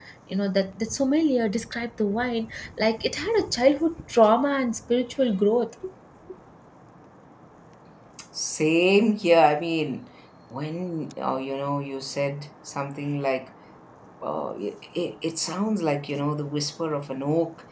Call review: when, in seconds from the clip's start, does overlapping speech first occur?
none

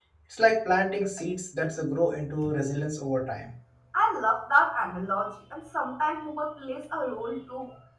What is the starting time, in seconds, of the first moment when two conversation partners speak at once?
none

